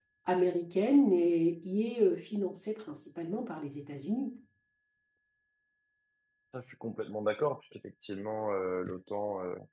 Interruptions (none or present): none